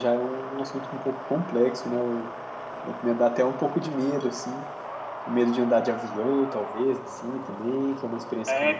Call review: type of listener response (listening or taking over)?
taking over